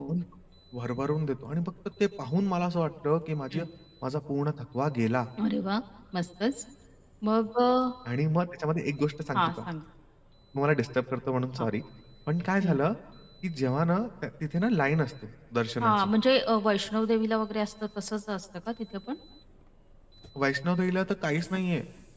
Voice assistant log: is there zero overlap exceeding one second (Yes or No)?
Yes